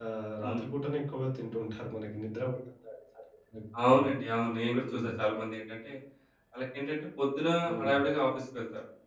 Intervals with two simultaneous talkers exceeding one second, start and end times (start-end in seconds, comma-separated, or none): none